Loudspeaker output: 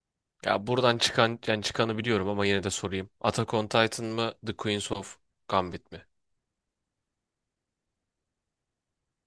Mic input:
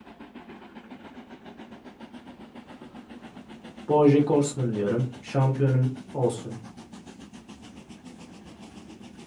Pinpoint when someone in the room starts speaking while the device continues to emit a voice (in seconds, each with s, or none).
3.9 s